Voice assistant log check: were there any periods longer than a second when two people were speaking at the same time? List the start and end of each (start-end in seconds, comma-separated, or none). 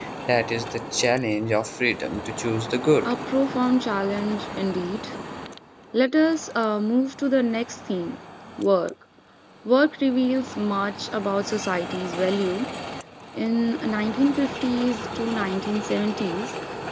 none